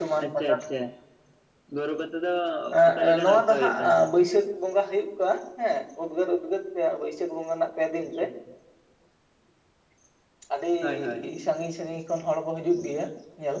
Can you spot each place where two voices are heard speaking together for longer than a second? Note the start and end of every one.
2.9-4.1

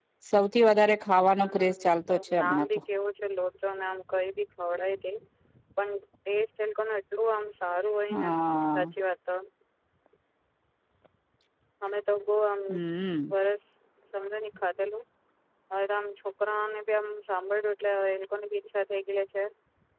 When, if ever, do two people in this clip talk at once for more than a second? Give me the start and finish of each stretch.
1.3-2.8

